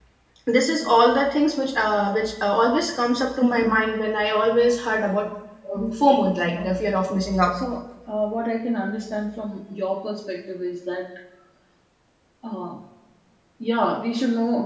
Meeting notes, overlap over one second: none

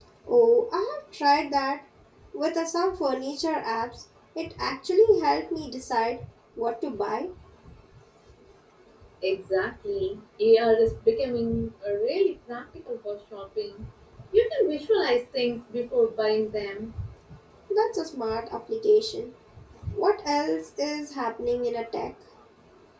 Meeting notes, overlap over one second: none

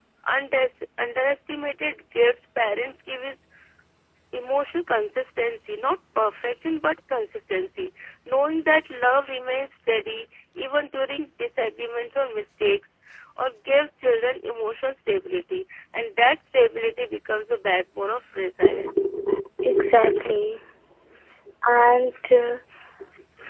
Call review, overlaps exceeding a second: none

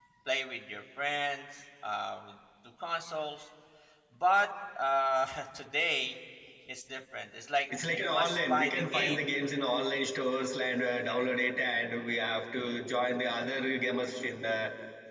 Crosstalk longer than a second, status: present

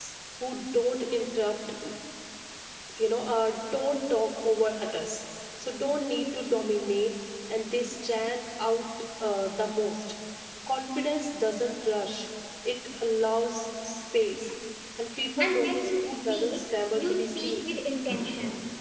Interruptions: present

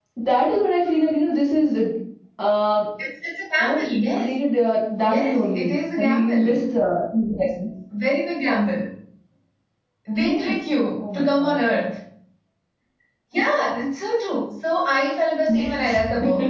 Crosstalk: present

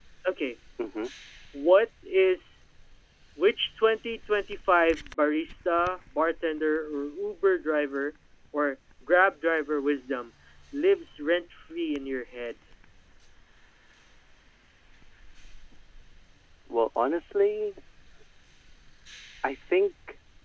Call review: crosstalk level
none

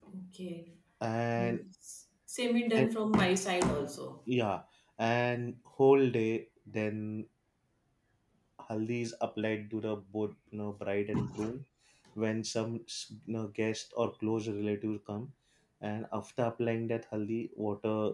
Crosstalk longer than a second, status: none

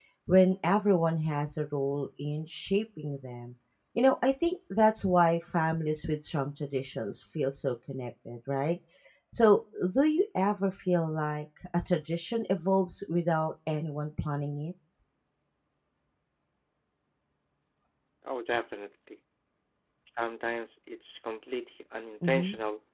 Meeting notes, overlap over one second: none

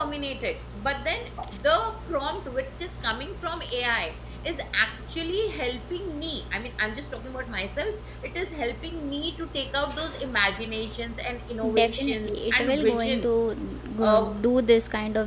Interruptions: present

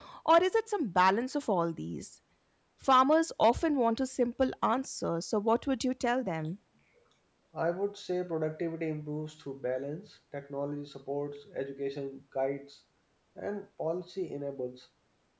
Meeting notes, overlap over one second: none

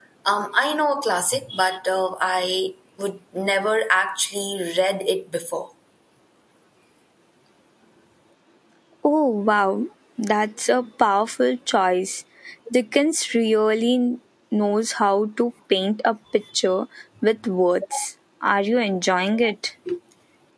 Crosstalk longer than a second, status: none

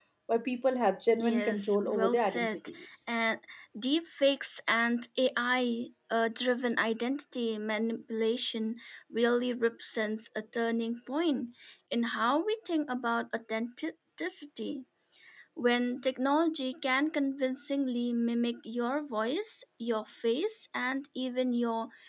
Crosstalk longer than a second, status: present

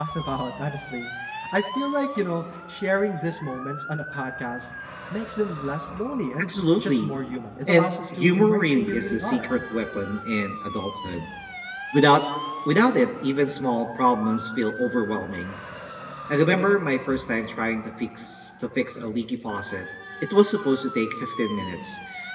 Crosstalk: present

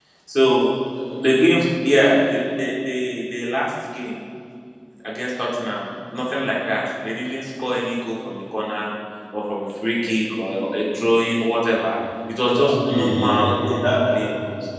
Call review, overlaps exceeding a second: present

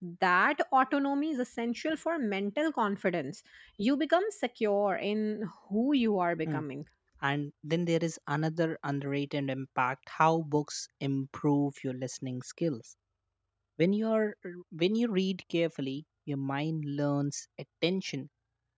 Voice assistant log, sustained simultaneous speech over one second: none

